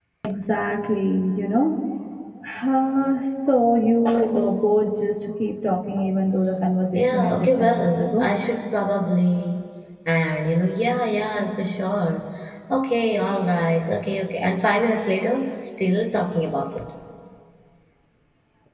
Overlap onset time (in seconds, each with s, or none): 6.9 s